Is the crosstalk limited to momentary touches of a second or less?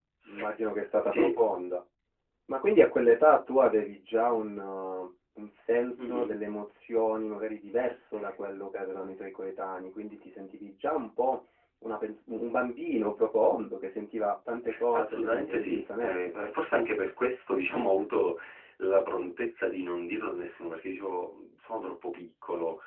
No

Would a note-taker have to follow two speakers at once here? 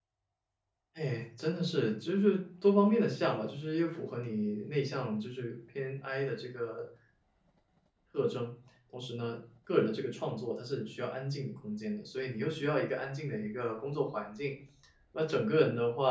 No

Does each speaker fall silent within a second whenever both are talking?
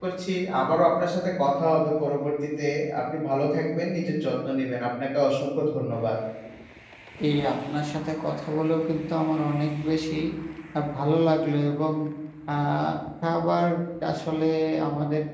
Yes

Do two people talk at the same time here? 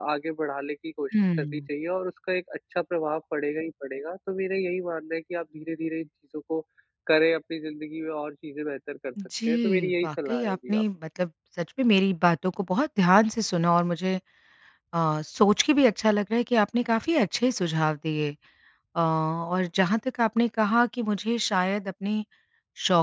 Yes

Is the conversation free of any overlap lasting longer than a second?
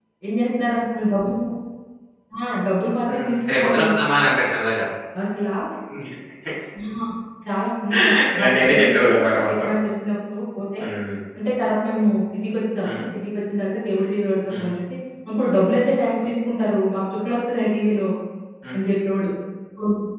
No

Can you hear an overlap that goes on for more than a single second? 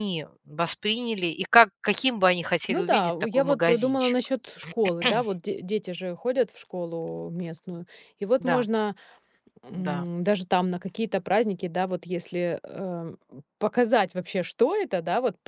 Yes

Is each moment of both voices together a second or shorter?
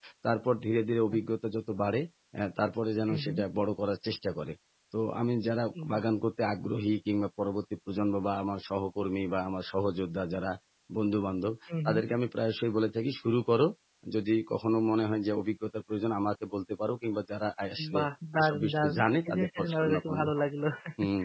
No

